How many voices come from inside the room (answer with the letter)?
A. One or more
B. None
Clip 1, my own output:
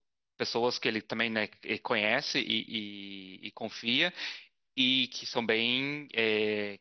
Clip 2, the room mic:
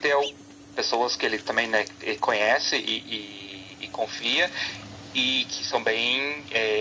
B